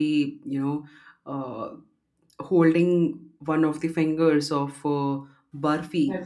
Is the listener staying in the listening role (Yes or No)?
Yes